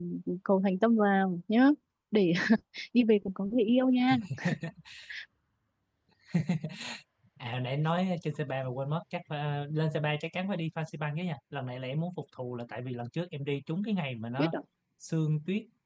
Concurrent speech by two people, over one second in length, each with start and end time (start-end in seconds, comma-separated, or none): none